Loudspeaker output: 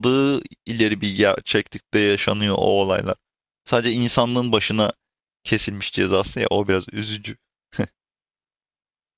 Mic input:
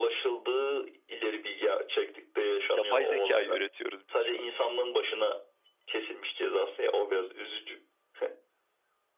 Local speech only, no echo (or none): Yapay zekayı üretiyoruz biz şu an.